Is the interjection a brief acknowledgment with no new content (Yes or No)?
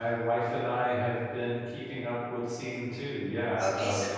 No